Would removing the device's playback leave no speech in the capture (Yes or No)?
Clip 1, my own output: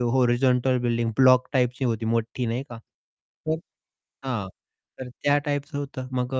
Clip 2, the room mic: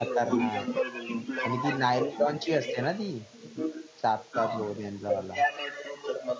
No